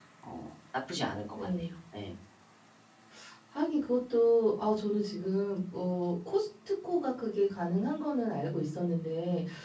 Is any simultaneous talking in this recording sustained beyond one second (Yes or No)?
No